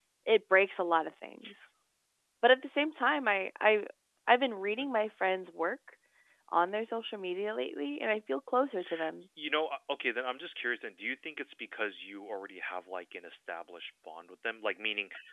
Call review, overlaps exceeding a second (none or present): none